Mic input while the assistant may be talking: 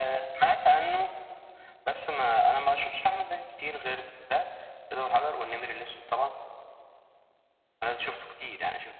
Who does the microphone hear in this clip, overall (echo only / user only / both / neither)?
echo only